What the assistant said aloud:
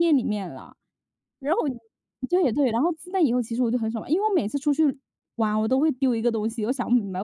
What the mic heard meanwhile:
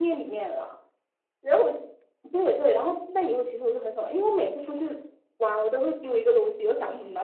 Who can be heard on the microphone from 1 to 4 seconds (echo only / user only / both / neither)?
echo only